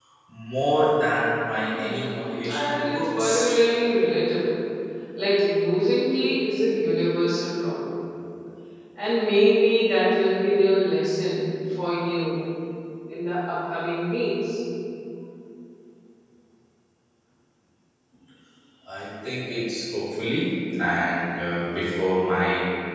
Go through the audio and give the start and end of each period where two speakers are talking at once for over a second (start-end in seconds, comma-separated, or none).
1.6-3.5